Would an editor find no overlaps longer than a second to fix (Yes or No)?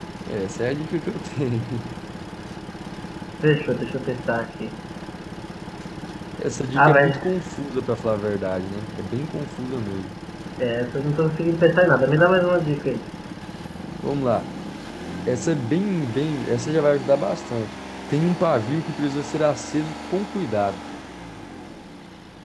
Yes